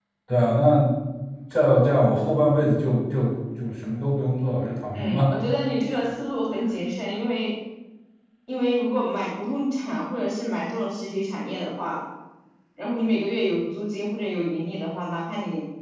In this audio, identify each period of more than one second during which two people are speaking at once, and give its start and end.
none

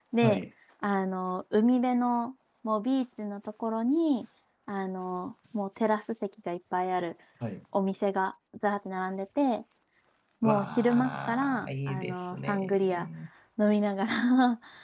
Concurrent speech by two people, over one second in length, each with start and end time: 10.4-13.1

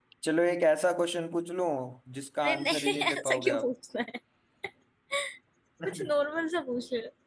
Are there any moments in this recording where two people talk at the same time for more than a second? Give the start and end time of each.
2.4-3.7

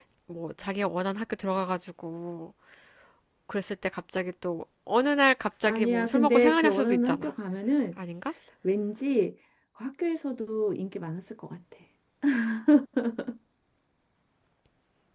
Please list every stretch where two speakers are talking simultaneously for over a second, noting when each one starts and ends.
5.6-7.3

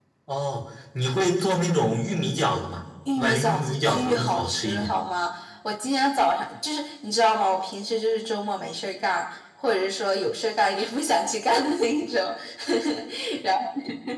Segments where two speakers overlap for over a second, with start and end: 3.2-4.9

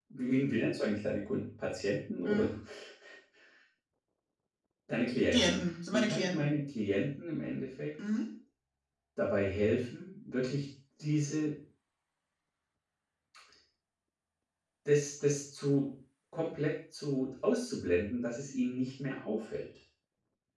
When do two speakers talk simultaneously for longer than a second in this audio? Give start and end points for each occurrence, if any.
5.3-6.5

